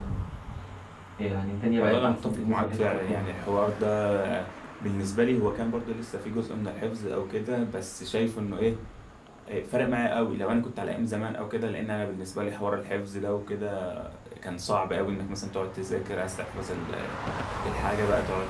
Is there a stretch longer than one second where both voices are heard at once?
Yes, from 1.8 s

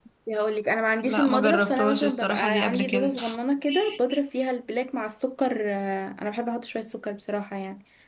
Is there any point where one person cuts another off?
Yes, from 1.1 s

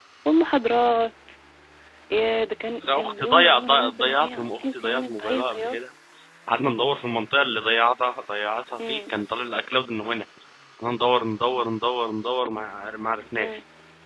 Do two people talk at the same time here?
Yes, from 2.9 s

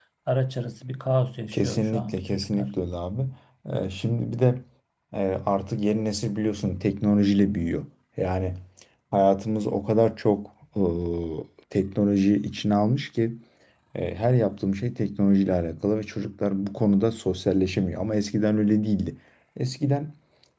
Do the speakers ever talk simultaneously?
Yes, from 1.5 s

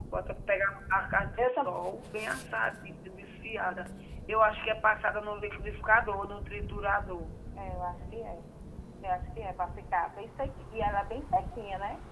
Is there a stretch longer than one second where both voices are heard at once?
No

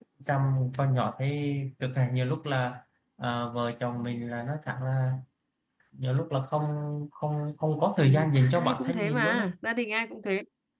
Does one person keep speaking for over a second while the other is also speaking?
Yes, from 8.0 s

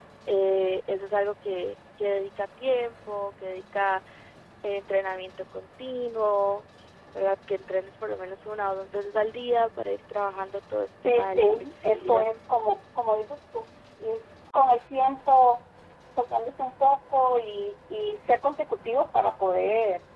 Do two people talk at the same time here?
Yes, from 11.0 s

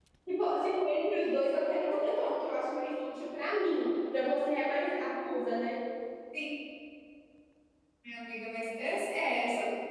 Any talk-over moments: No

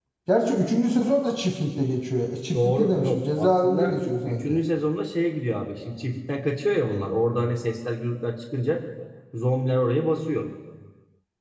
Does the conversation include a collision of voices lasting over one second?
Yes, from 2.5 s

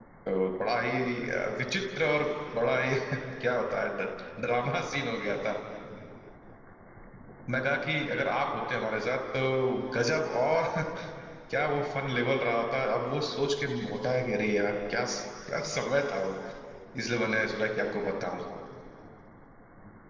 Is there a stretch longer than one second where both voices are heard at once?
No

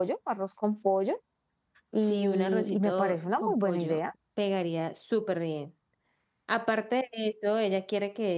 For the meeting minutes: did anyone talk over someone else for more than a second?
Yes, from 2.0 s

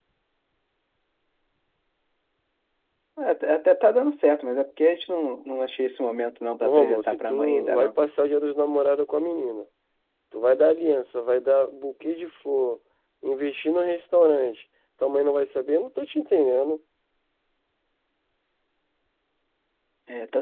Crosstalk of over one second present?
Yes, from 6.6 s

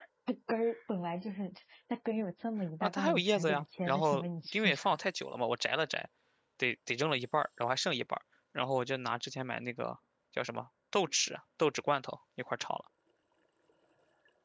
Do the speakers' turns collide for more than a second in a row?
Yes, from 2.8 s

